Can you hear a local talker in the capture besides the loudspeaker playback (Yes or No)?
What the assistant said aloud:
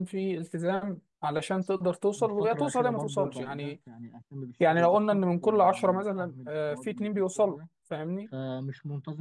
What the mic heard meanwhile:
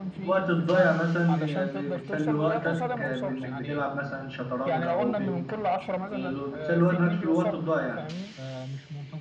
Yes